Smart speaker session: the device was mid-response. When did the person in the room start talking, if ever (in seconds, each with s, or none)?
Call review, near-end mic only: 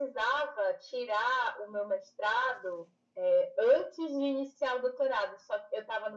none